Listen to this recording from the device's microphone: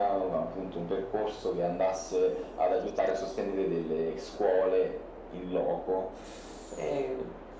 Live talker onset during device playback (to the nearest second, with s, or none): none